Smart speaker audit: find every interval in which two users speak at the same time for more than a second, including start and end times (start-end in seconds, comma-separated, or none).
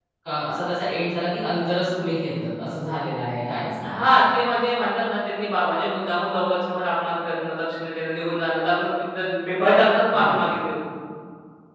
none